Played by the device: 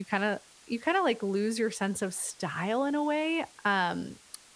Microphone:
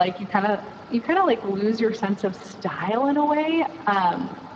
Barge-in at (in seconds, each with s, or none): none